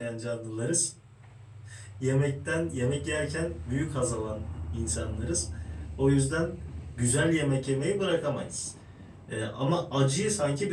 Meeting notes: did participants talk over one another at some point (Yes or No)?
No